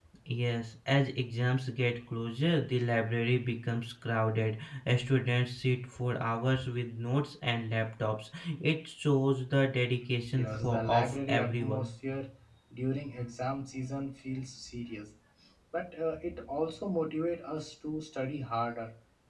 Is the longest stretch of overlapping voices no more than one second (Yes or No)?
No